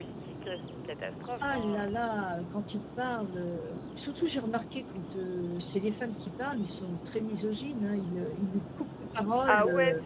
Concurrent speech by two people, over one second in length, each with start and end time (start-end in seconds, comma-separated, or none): none